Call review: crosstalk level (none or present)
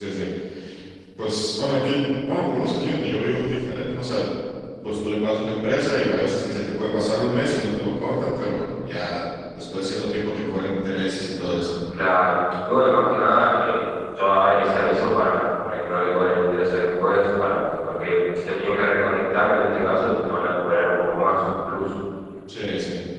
none